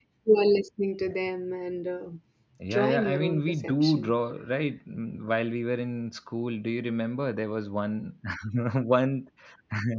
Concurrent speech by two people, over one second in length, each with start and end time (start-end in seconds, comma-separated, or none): 2.7-4.1